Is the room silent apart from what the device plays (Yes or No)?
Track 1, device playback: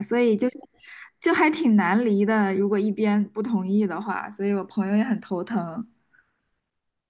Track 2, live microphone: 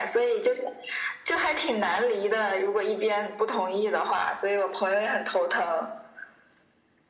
Yes